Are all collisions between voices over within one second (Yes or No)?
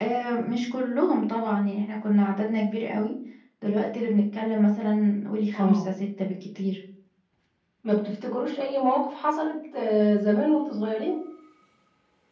Yes